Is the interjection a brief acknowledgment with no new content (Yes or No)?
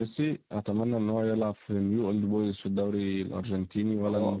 No